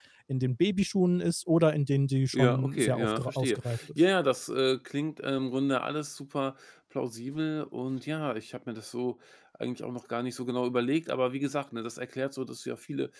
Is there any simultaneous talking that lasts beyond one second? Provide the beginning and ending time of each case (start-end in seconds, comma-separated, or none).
2.3-4.0